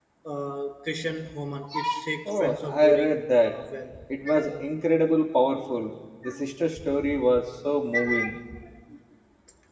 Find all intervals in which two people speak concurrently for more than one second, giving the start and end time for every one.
2.2-3.5

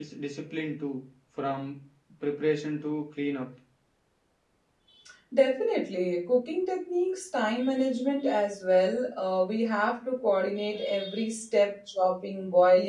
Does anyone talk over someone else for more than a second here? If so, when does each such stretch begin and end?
none

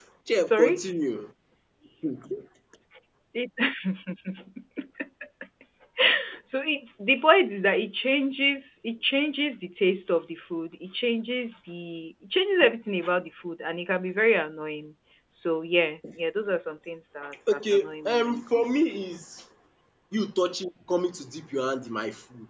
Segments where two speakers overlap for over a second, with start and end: 17.5-18.8

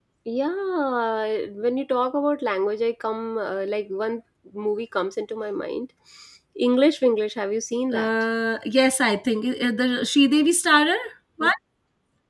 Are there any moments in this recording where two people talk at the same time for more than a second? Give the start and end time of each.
none

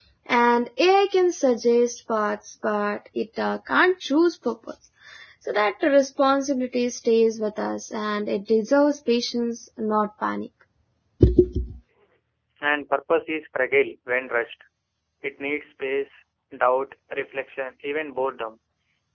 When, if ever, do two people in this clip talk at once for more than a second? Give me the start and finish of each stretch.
none

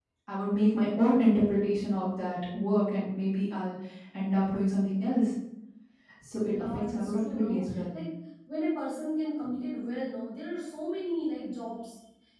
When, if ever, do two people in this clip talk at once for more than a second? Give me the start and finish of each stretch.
6.5-7.9

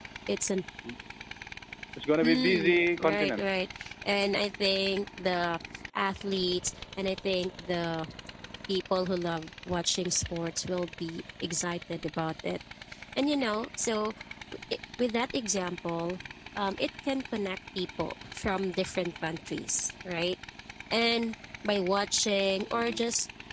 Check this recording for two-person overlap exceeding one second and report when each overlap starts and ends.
2.2-3.5

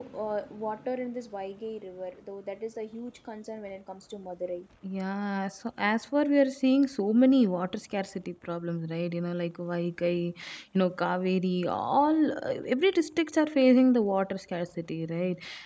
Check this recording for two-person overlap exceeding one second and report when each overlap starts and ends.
none

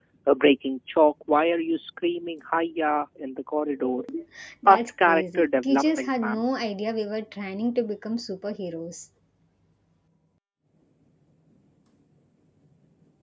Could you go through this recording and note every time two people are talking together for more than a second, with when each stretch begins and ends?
4.7-6.5

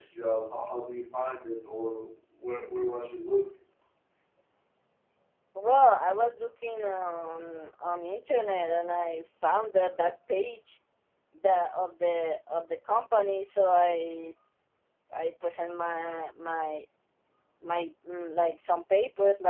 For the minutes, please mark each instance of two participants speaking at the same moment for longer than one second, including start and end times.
none

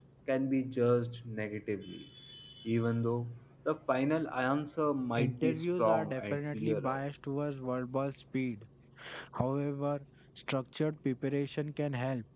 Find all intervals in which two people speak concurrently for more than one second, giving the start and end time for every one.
5.2-7.0

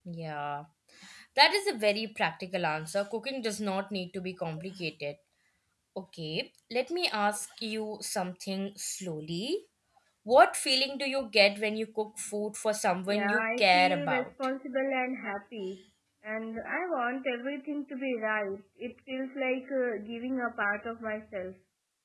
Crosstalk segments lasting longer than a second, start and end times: 13.1-14.3

